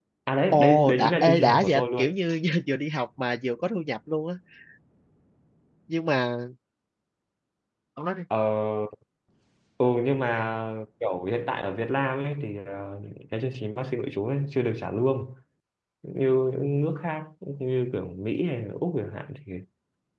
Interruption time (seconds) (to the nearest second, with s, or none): 1 s